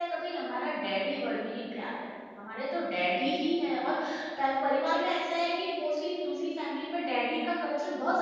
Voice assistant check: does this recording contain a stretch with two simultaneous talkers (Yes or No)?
No